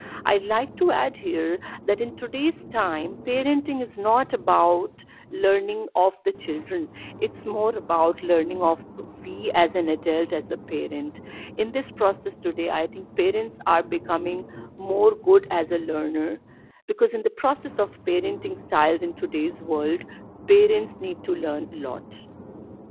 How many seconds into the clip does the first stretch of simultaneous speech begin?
none

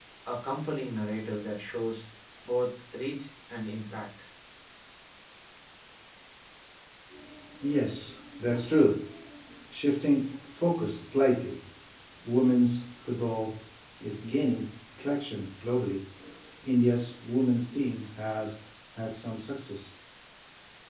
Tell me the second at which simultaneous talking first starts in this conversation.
none

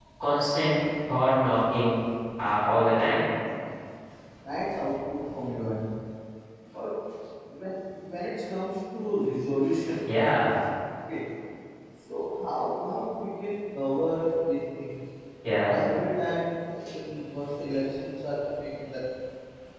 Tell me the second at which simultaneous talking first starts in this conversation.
none

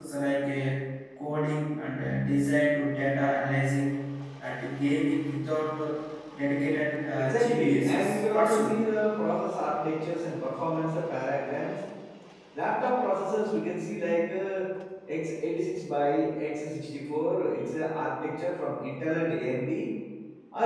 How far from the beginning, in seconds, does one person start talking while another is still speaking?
7.2 s

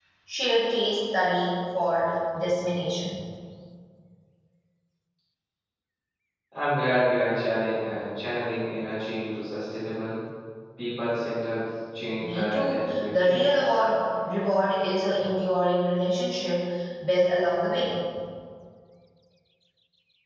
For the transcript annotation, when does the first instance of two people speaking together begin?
12.2 s

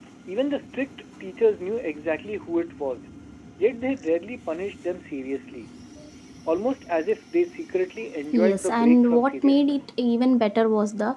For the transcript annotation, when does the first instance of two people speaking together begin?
8.3 s

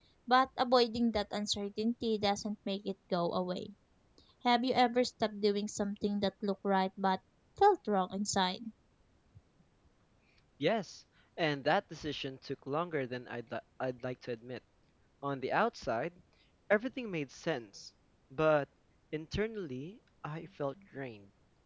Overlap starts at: none

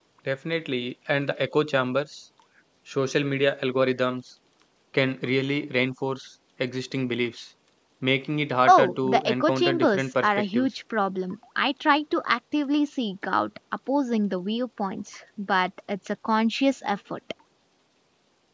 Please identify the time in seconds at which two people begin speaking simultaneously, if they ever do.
8.7 s

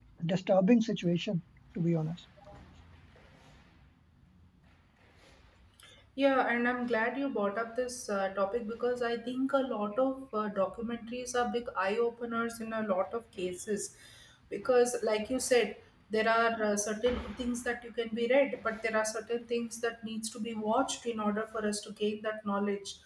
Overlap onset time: none

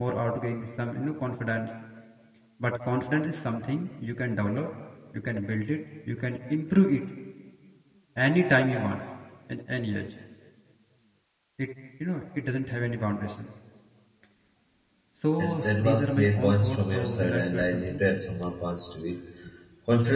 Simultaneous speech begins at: 15.4 s

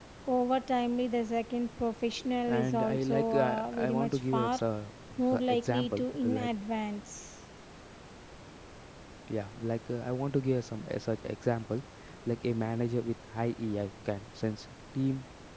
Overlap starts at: 2.5 s

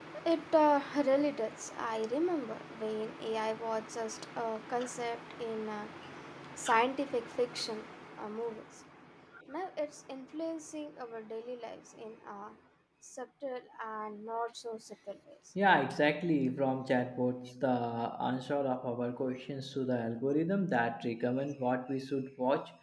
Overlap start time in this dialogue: none

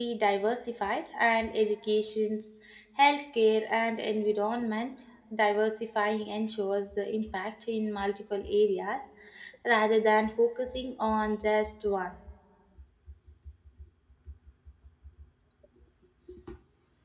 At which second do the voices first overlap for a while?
none

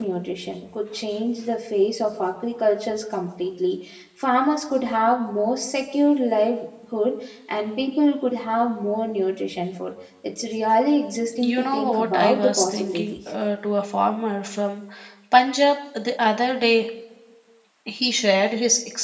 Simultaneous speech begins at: 11.3 s

